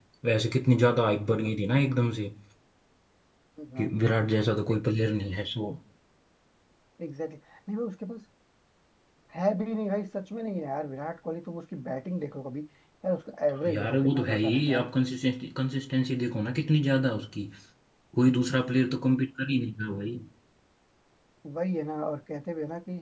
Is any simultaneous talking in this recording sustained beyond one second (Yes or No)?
Yes